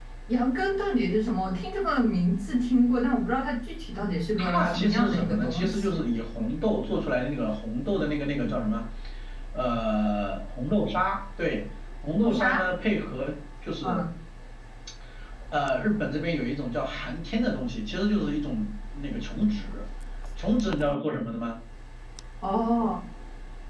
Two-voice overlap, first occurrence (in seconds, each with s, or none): 4.4 s